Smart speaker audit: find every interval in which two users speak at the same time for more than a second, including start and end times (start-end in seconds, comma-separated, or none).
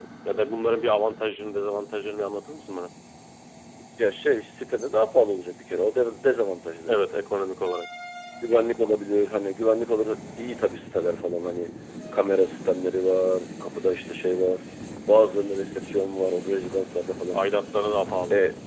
none